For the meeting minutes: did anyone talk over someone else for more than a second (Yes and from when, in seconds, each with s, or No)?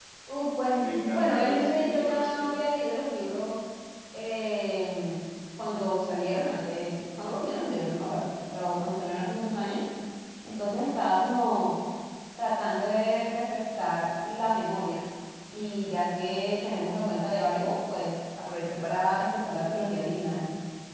Yes, from 0.8 s